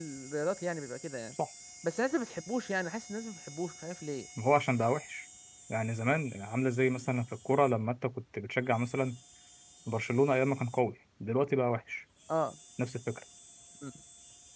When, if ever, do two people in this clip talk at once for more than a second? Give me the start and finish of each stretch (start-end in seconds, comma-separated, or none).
none